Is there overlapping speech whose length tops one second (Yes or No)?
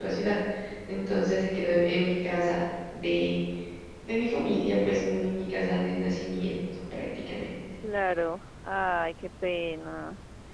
No